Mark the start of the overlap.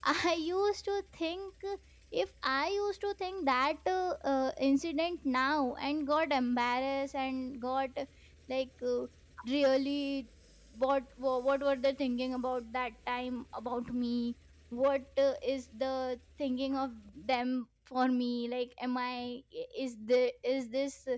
none

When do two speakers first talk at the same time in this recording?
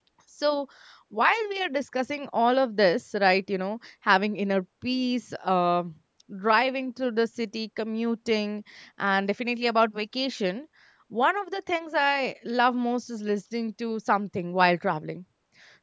none

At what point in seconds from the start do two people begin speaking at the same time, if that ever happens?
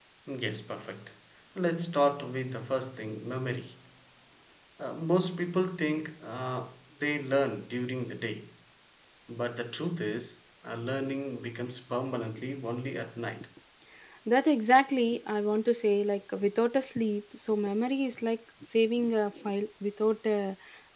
none

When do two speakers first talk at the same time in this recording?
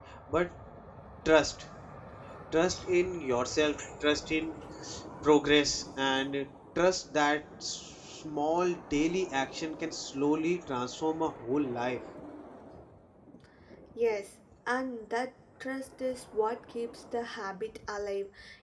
none

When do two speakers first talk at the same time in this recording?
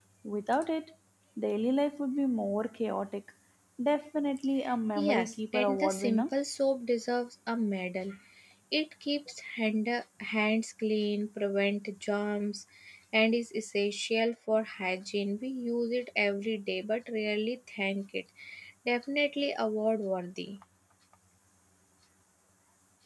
5 s

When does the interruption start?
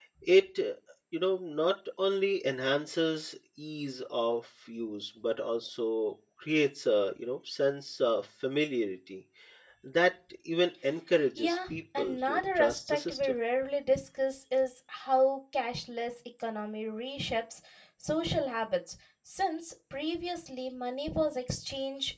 11 s

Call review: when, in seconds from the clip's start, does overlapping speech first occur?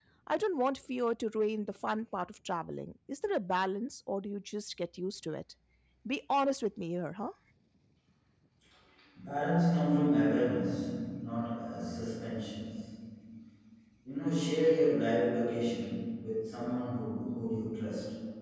none

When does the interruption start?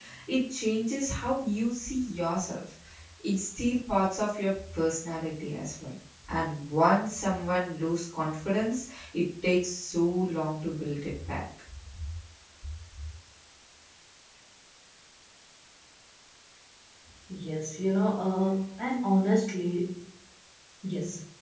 none

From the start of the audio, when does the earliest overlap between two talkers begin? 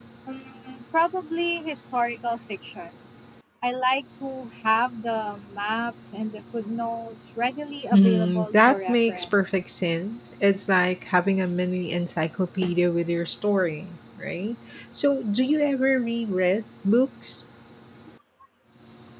8 s

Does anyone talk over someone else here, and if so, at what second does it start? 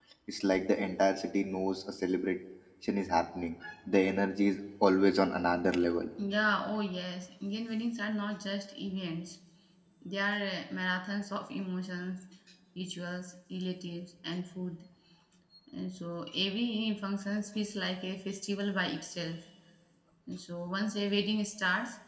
none

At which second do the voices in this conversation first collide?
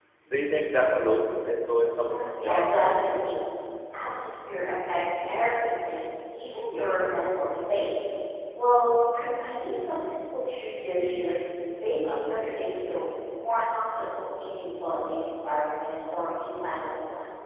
2 s

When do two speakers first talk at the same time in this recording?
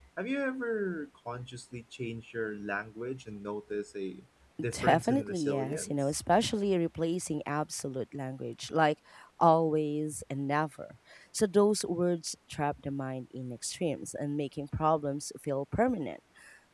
5 s

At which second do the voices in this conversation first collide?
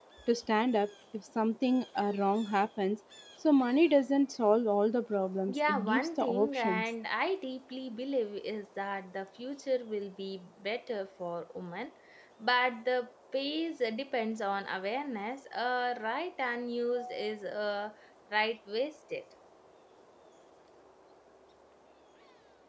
5 s

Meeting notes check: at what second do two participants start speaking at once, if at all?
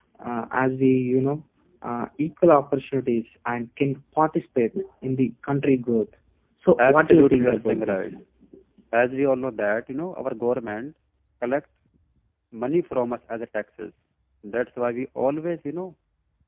7 s

